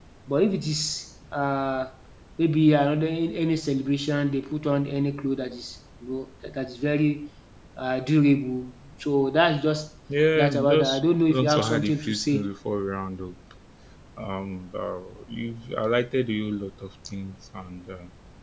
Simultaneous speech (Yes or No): Yes